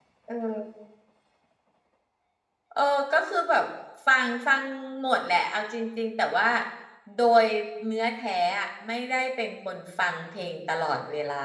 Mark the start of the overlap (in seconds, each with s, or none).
none